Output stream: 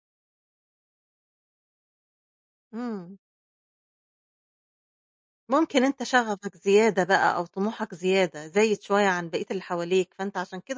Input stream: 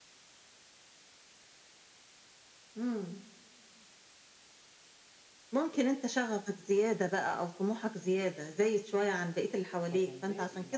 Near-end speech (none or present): present